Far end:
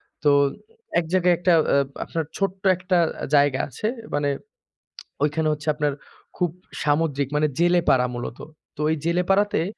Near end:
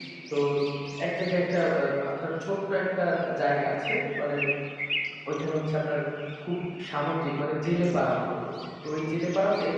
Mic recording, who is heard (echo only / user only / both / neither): echo only